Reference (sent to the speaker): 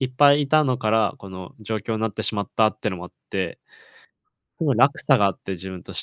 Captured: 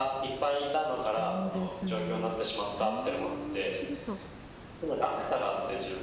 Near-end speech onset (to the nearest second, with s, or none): 1 s